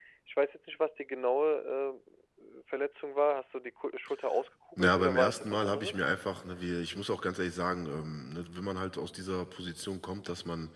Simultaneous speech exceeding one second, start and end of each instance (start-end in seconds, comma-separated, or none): 4.8-6.0